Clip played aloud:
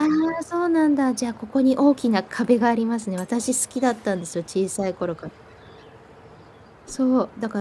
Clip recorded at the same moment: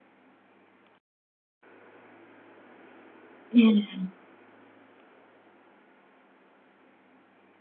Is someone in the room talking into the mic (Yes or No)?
Yes